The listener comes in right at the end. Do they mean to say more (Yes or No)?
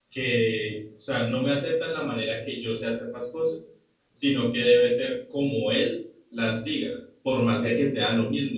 No